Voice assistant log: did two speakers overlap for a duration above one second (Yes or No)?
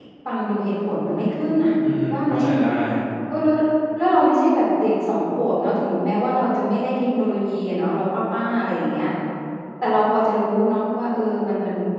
No